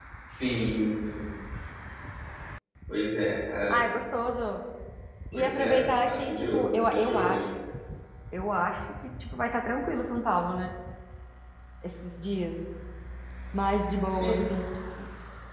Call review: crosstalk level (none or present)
present